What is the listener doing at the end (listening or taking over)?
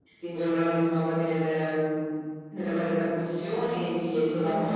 listening